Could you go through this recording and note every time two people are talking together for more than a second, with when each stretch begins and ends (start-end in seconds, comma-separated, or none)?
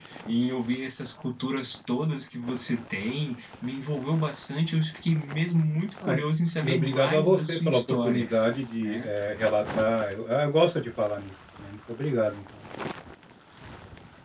6.6-8.2